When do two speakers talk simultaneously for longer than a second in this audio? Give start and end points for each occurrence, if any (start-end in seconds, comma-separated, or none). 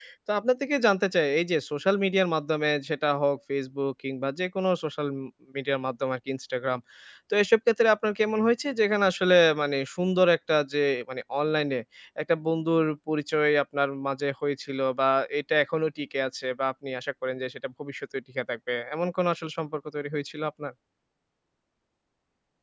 none